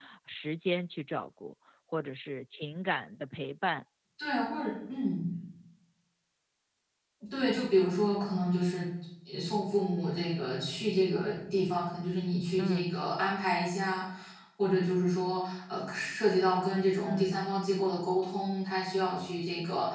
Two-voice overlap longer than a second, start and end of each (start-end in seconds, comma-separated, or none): none